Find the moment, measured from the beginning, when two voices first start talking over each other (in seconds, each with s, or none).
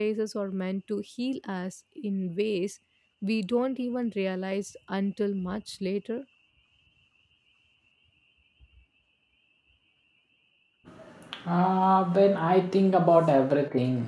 none